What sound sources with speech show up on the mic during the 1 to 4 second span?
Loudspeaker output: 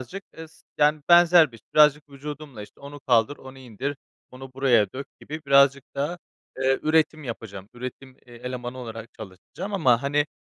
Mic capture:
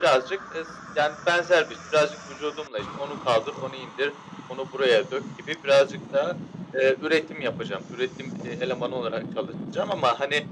echo only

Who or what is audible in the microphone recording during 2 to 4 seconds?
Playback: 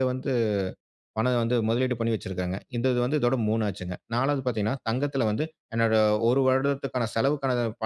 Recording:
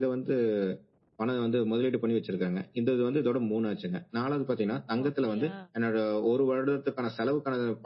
echo only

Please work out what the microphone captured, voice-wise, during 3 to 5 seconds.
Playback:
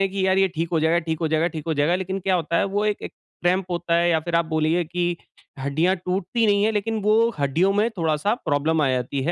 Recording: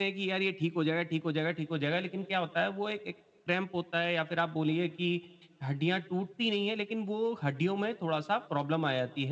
echo only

